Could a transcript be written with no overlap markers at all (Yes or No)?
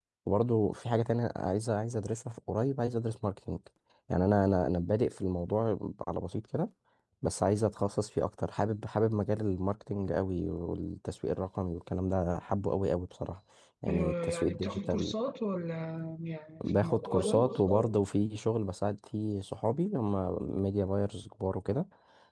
No